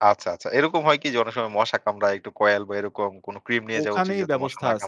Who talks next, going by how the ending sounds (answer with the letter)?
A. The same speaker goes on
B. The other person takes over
B